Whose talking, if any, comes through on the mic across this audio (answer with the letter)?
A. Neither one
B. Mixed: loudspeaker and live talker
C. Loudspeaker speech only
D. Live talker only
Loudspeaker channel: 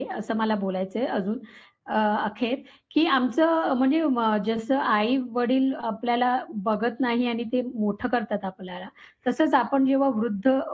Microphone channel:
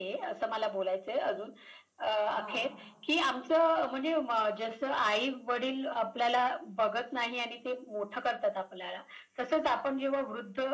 B